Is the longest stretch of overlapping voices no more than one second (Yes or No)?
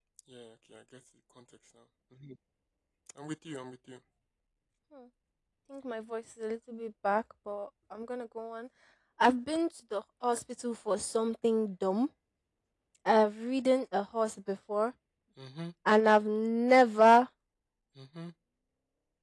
Yes